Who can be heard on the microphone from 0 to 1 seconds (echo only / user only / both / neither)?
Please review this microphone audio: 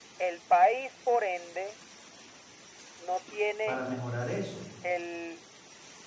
echo only